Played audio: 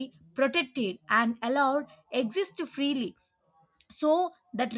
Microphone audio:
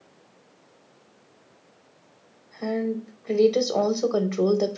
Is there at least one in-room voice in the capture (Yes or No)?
Yes